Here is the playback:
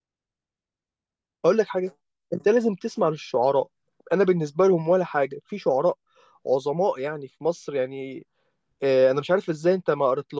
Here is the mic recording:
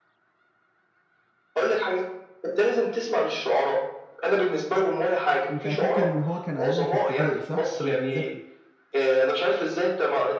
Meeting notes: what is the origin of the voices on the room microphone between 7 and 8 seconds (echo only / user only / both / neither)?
both